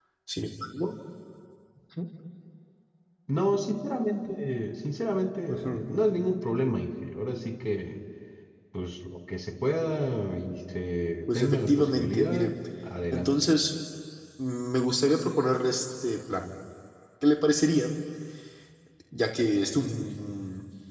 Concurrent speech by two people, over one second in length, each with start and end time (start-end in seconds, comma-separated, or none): 11.3-12.5